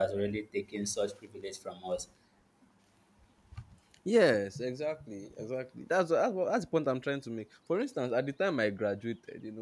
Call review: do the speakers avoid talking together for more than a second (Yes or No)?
Yes